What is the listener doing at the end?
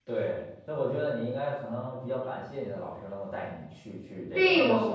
taking over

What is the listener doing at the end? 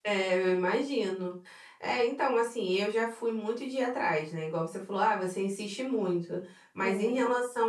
listening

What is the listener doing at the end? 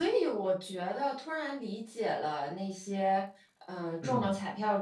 listening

